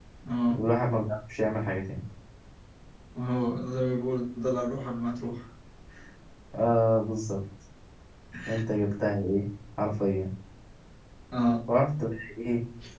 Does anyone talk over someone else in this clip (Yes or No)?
No